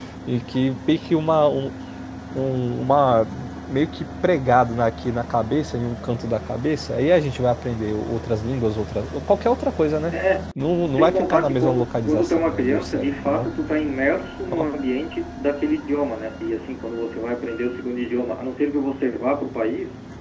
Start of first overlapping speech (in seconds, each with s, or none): 10.9 s